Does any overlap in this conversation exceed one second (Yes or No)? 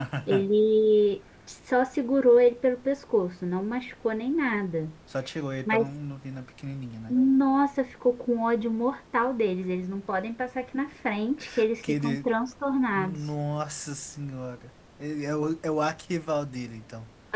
No